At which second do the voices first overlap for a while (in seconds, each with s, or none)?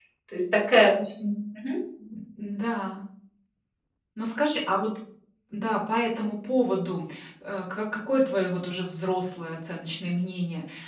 none